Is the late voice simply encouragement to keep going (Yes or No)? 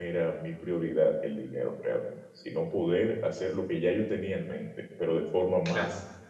Yes